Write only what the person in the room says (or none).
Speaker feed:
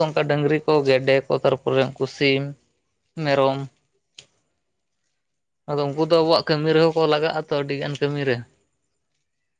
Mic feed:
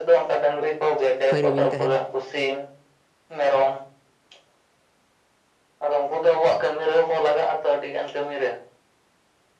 ᱯᱷᱟᱹᱨᱤ ᱵᱤᱱ ᱛᱟᱦᱮᱱ?